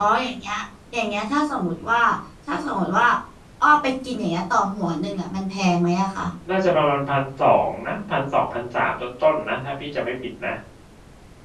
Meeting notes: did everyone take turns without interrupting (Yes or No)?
Yes